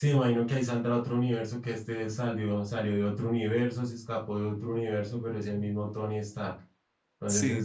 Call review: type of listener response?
listening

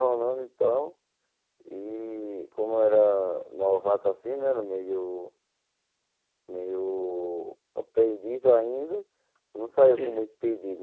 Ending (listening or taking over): listening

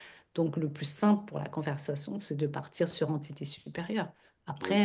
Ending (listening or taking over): taking over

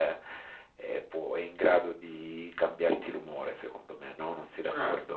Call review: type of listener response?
taking over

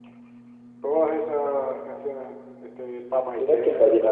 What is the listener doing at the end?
taking over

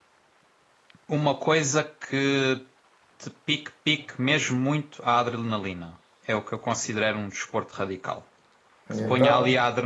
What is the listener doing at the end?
listening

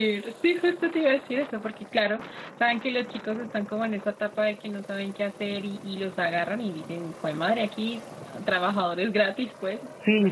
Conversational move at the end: taking over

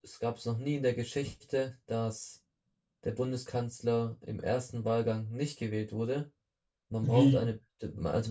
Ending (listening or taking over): listening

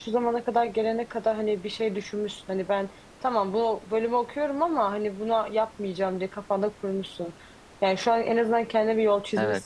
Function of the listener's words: listening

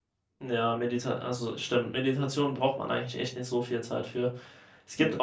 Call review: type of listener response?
listening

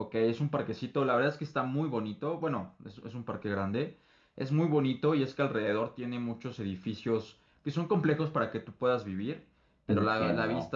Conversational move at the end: listening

